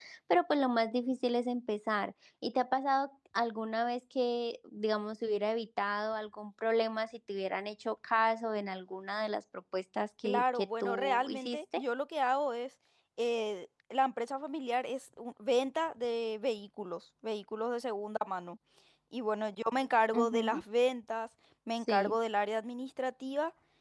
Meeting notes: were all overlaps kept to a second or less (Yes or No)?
No